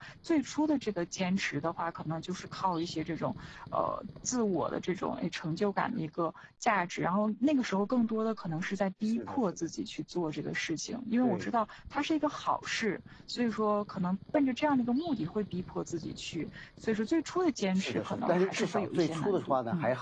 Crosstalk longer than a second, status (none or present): present